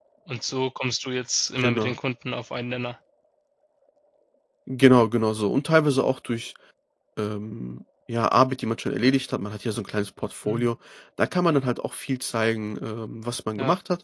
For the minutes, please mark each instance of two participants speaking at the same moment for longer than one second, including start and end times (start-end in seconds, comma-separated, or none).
none